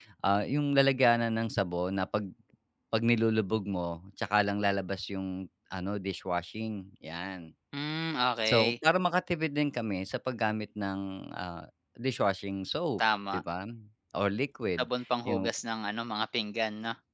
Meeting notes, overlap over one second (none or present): none